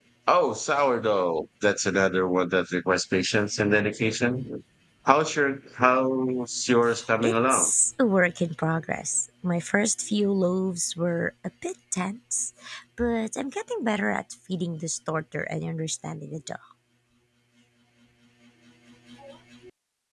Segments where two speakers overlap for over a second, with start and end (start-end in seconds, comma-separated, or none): none